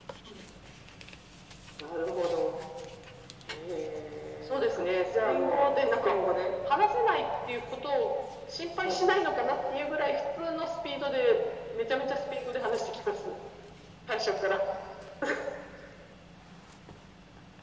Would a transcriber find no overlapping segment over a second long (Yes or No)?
No